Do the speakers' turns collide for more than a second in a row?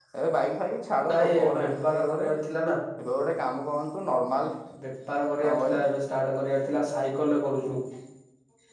Yes, from 1.1 s

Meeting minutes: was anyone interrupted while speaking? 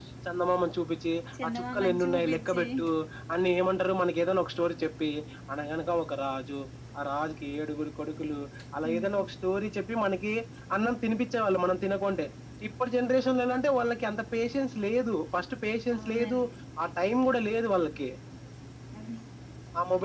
Yes, from 1.4 s

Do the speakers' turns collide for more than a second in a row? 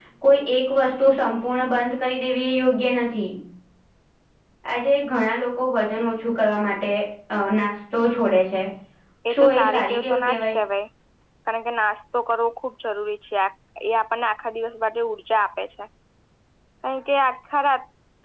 Yes, from 9.3 s

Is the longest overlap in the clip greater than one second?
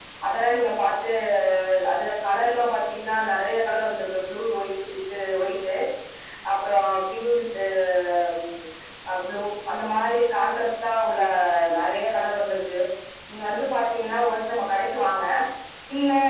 No

